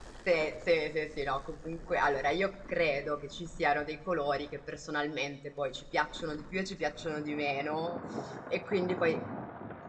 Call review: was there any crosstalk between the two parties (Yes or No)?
No